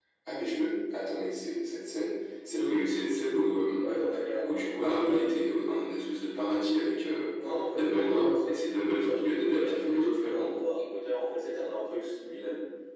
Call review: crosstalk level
present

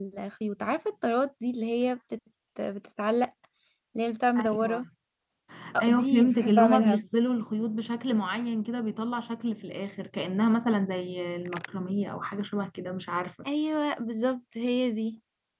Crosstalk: present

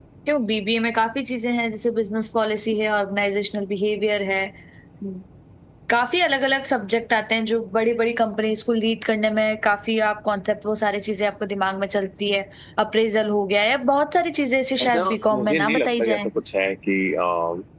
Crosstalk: present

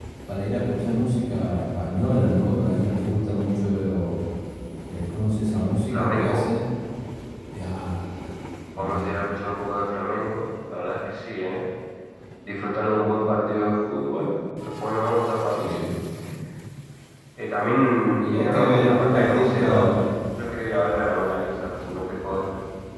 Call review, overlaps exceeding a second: present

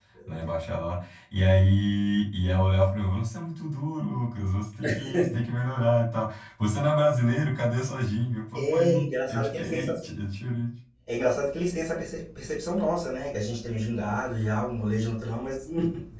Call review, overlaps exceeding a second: present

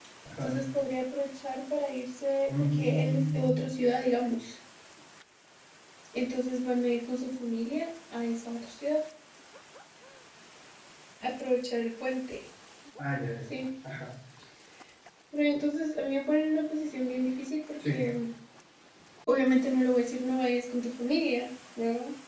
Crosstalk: present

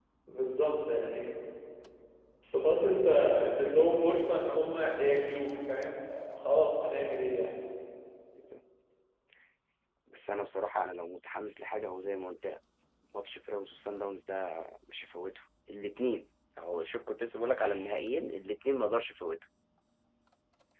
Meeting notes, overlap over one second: none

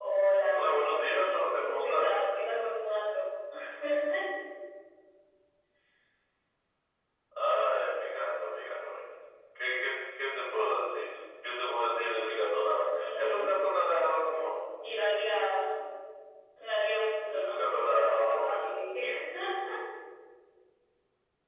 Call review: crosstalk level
present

